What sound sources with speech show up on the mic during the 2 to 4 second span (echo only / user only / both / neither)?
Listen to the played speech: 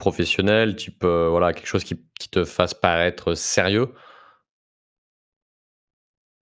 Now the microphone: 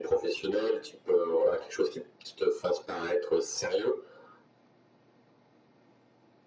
echo only